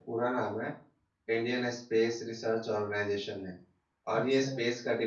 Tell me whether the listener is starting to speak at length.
No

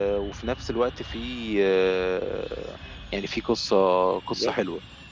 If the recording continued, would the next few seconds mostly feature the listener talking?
Yes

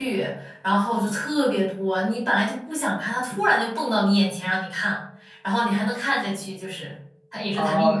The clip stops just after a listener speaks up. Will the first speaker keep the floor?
No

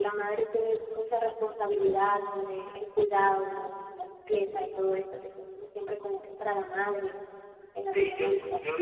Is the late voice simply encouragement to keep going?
No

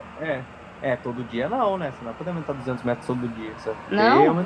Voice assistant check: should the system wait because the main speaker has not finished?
Yes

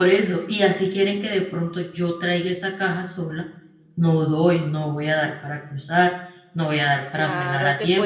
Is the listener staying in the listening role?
No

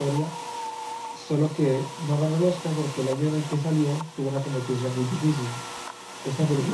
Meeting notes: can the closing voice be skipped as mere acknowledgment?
Yes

